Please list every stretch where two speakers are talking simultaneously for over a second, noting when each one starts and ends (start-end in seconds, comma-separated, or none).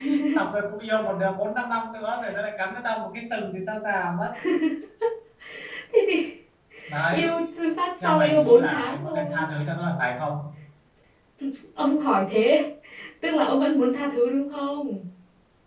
8.0-9.5